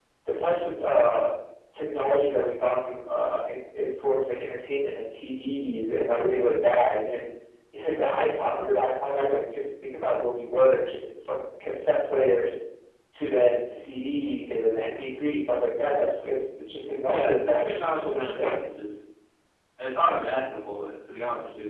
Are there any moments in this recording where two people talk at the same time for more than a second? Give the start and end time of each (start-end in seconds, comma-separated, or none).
17.0-18.5